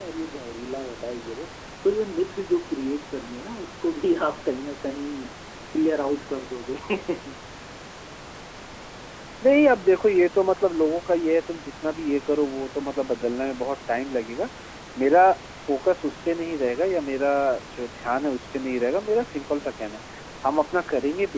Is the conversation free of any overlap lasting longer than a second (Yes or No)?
Yes